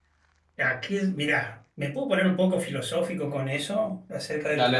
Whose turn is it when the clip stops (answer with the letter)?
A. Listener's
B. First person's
B